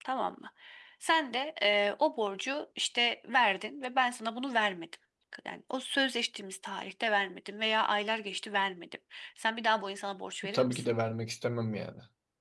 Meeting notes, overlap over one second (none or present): none